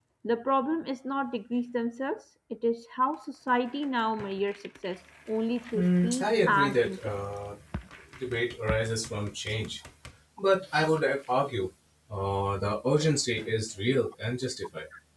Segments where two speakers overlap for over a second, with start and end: 5.7-7.2

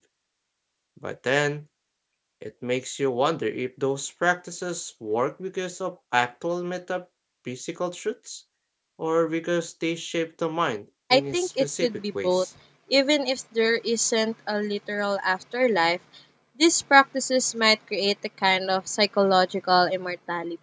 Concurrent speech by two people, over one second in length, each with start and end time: 11.1-12.4

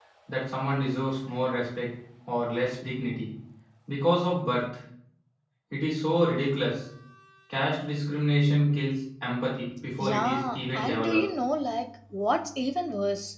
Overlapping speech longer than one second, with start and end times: 10.0-11.2

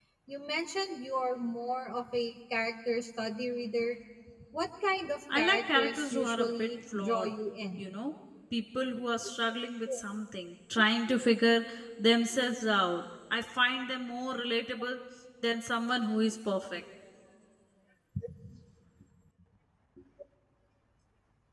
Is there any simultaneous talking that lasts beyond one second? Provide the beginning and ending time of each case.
5.4-7.3

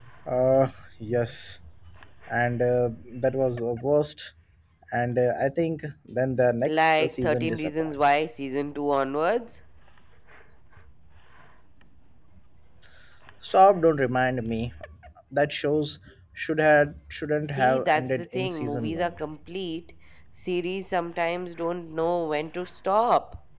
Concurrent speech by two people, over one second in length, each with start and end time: 6.7-8.2, 17.5-19.2

